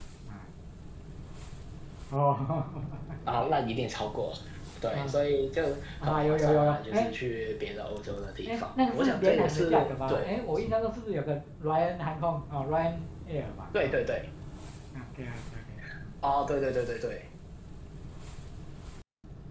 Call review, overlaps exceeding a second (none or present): present